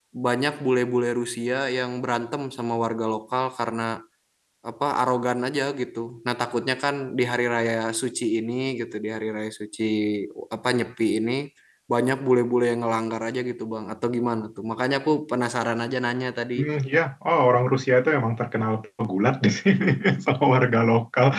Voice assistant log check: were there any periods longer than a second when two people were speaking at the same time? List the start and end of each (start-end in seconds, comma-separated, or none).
none